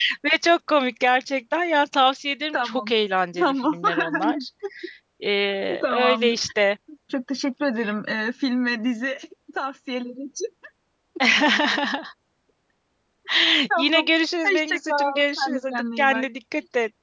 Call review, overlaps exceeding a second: present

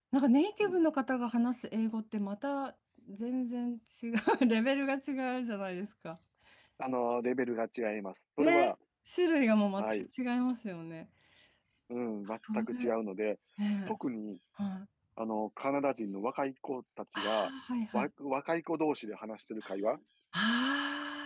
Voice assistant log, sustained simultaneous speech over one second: none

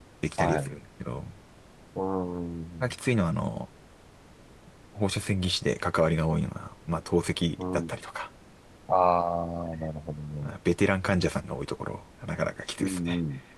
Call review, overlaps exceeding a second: none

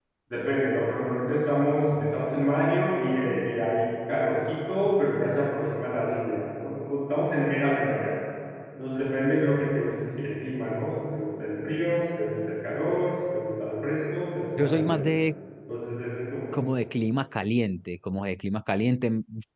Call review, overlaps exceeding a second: none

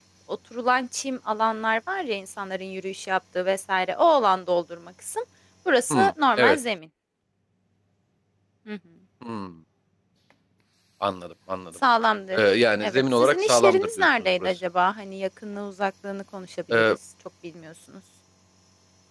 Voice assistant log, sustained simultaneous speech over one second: present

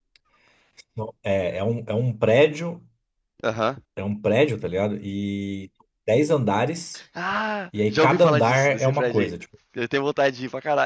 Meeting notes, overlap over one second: present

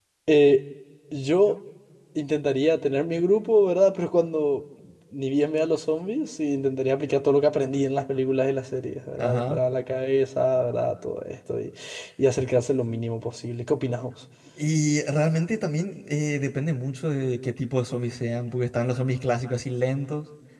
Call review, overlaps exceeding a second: none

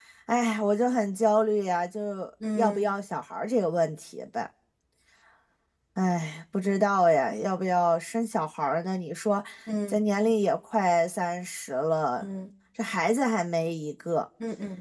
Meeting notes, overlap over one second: none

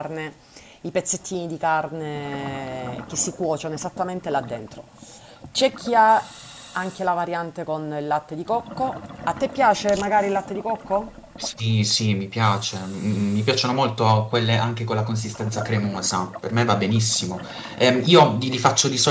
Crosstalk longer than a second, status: none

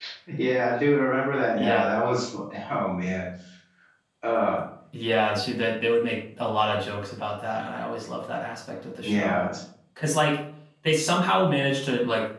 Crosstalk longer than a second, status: none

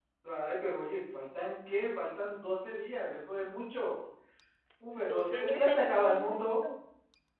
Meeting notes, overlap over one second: present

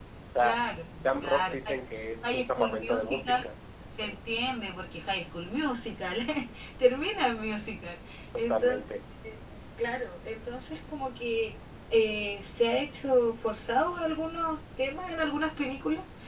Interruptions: present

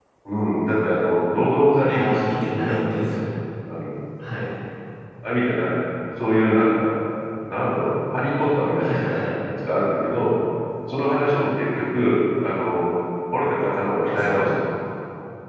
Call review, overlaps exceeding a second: present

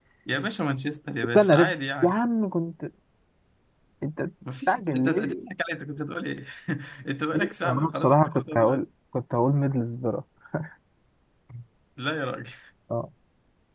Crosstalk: present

